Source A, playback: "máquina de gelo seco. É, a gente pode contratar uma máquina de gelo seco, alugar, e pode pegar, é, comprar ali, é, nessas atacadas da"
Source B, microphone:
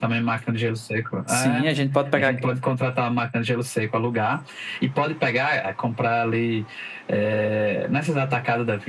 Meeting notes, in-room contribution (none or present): present